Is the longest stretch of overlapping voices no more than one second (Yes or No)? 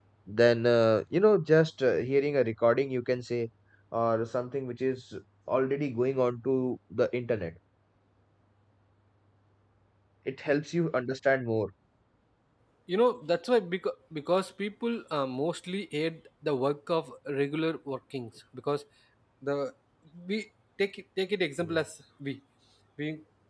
Yes